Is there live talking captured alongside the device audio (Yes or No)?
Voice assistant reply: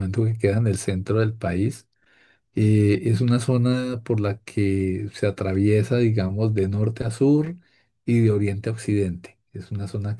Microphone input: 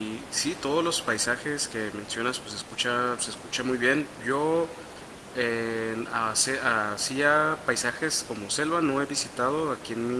Yes